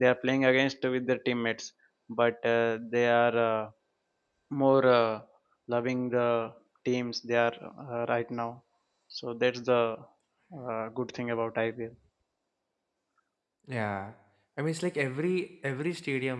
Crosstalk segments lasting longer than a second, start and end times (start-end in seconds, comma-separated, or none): none